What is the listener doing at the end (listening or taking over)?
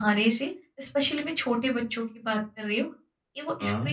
listening